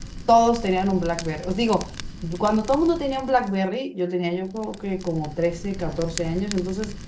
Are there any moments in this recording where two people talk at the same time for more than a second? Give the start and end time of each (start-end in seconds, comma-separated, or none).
none